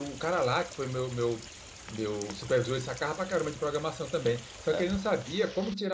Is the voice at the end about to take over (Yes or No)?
No